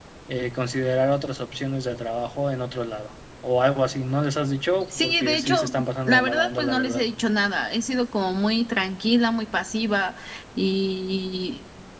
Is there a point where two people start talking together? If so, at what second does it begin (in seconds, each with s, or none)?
4.9 s